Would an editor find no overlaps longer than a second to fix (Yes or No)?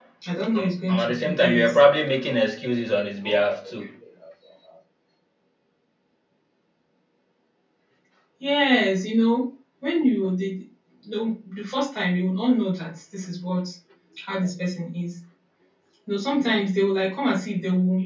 No